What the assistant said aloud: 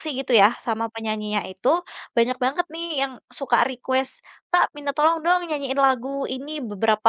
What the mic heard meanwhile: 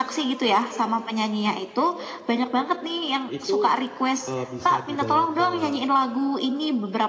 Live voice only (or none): itu, eee bisa dibawa ke,